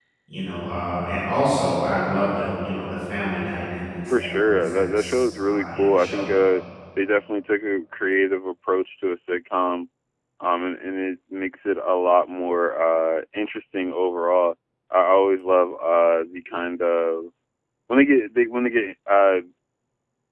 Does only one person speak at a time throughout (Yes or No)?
No